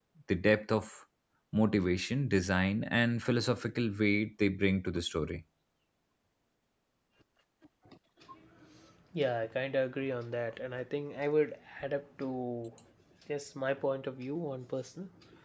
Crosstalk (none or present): none